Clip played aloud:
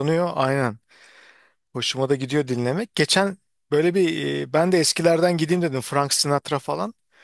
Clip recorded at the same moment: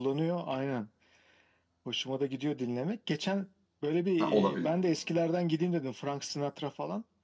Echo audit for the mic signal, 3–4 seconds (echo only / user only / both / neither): echo only